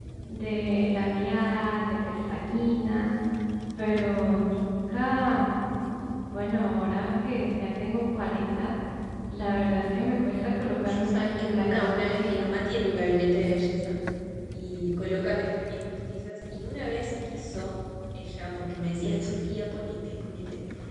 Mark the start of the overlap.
10.6 s

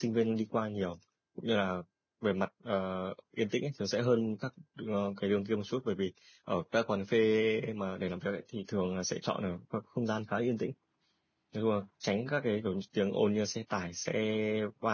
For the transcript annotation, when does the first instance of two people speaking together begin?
none

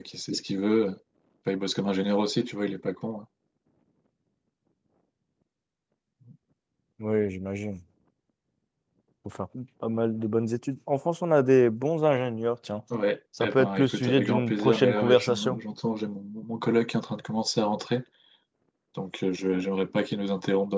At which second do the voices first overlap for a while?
13.4 s

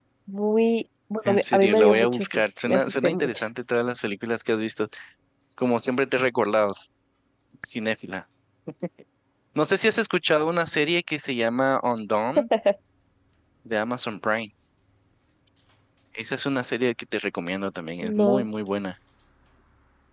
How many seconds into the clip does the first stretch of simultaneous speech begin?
1.2 s

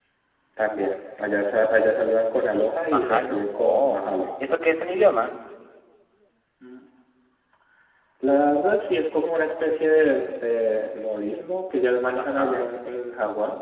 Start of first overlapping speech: 2.9 s

